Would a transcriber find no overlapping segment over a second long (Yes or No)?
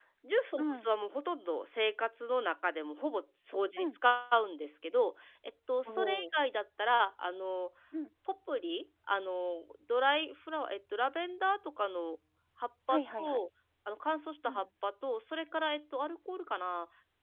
Yes